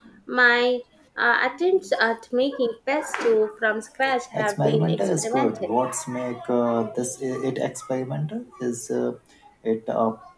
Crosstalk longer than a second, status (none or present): present